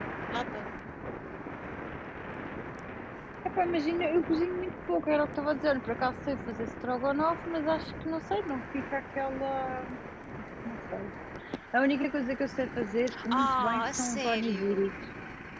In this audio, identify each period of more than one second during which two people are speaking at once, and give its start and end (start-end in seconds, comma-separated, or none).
13.3-14.9